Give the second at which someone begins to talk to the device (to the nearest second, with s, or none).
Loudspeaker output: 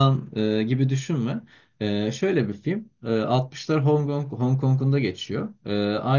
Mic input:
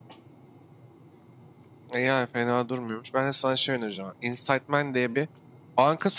2 s